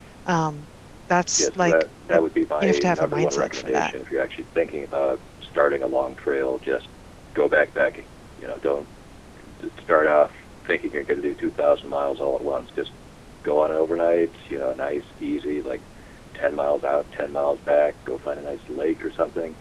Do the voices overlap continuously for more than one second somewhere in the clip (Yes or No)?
Yes